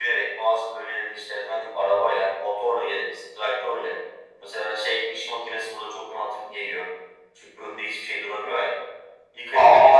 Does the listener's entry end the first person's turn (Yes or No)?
Yes